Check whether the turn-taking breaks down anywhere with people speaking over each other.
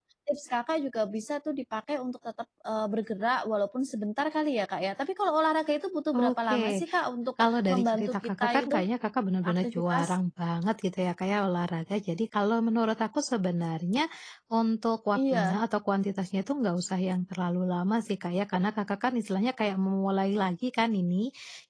Yes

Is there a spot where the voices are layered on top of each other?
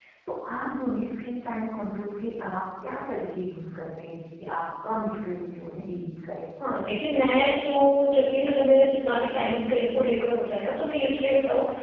No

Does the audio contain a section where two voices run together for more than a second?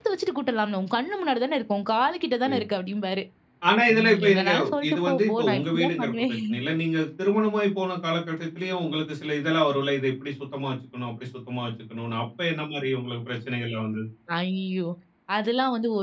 Yes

